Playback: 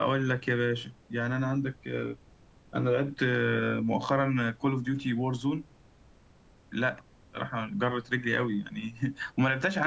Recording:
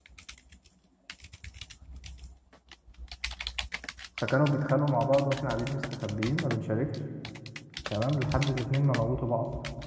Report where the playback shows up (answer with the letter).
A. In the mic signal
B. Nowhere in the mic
B